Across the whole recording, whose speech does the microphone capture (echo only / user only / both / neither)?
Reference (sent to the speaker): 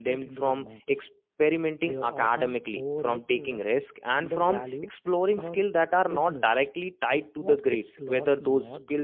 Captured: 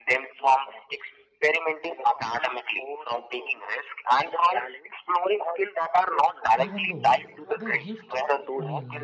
both